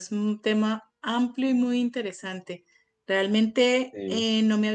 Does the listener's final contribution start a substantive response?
No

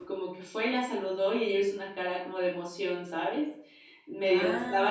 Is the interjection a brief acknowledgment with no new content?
Yes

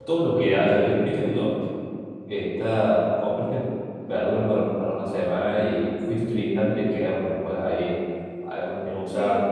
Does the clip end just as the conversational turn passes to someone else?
No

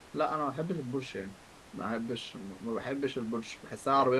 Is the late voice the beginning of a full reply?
No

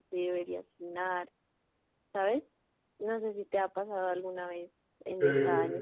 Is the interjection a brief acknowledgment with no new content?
Yes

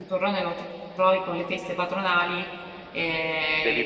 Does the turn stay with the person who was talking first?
Yes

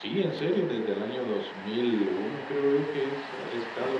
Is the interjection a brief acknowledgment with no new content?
No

